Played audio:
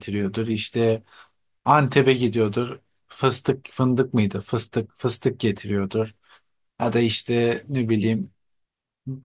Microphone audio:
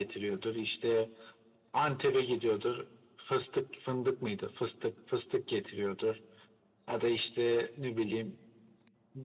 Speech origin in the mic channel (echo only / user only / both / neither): echo only